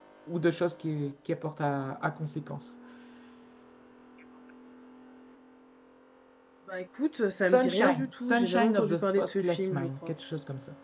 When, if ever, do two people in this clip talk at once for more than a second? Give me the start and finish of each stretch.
7.5-10.1

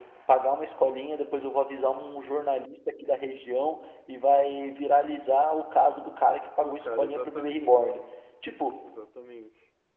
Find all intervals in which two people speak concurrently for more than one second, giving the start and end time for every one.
6.6-8.0

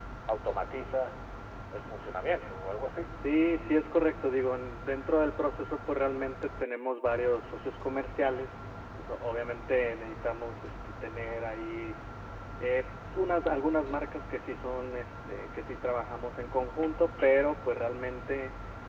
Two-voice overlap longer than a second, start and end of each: none

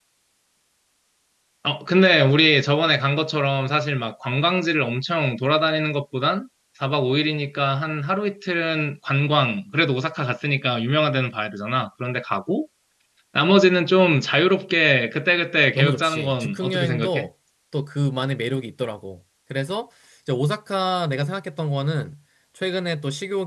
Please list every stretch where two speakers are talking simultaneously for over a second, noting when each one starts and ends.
15.8-17.3

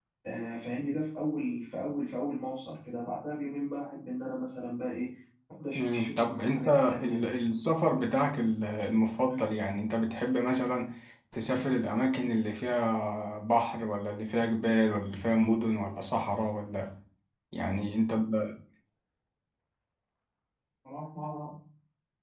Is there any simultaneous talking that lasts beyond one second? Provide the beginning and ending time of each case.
5.8-7.3

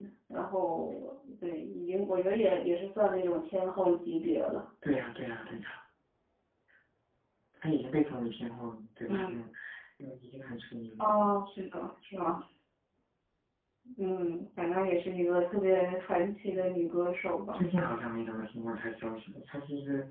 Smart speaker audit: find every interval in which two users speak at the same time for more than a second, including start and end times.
none

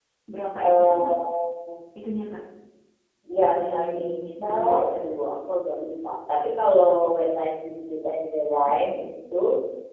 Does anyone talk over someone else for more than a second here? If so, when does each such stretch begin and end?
3.6-5.0

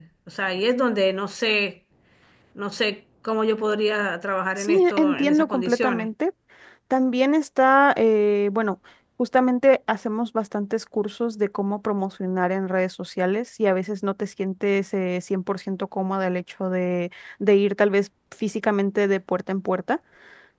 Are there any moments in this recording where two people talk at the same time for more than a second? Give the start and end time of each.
4.6-6.1

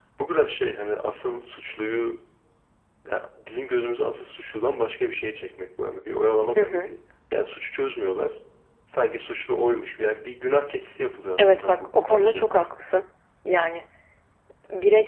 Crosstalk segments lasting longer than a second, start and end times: 11.4-12.6

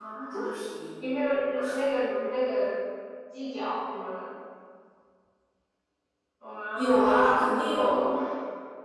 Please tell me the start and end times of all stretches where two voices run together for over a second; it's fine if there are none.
6.7-8.1

